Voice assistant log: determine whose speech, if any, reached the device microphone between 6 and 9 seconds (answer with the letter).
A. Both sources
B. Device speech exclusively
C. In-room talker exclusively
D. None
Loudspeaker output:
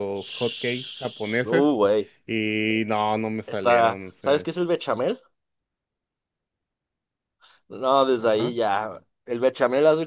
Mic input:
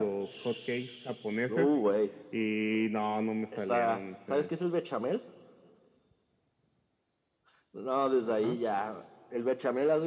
B